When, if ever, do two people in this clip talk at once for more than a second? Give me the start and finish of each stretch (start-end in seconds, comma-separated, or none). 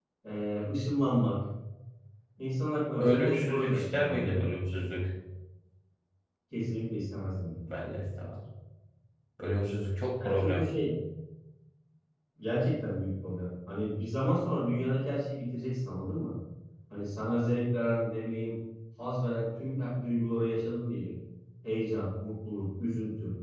3.0-4.5